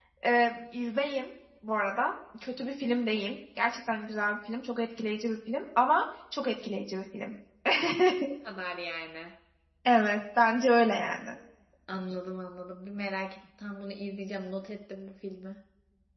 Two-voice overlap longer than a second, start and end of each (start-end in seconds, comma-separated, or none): none